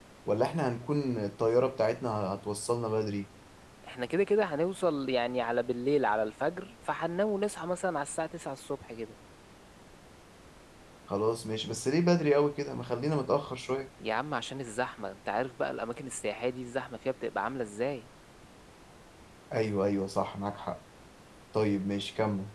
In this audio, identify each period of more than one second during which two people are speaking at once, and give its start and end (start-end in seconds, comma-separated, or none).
none